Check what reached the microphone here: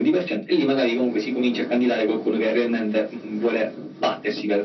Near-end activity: none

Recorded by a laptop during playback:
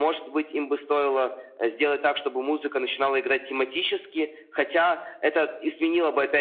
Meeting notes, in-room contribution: none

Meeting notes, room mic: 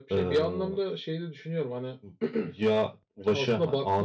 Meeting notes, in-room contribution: none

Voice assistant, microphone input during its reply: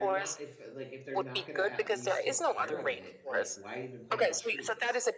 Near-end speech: present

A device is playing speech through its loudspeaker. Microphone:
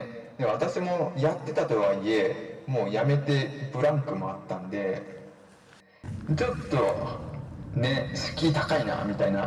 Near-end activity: none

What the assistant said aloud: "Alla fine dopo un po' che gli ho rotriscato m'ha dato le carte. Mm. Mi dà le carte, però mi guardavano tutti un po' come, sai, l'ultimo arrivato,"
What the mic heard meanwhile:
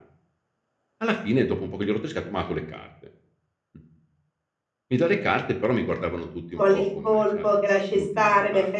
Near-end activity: present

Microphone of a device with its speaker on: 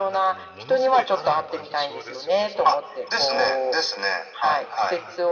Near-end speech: present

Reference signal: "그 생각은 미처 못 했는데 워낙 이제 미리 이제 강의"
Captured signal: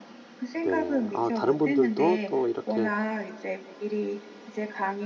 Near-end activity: present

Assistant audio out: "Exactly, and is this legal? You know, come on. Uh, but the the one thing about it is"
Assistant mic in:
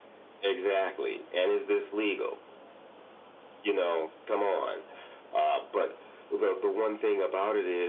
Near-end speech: none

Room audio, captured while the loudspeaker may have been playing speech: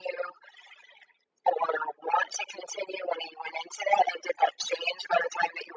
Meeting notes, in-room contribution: none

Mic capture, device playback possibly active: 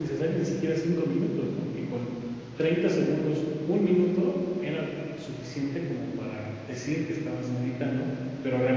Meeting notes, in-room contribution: present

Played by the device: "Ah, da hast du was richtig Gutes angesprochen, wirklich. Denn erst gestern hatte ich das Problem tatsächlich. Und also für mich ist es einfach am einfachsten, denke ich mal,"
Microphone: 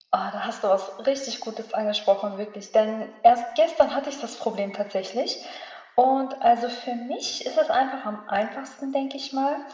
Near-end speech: none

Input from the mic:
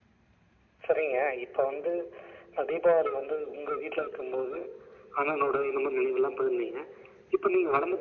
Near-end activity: none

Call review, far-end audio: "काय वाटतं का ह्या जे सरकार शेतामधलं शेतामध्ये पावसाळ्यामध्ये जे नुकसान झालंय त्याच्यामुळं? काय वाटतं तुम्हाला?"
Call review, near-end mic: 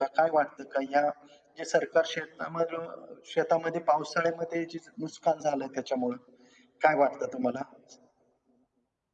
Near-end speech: none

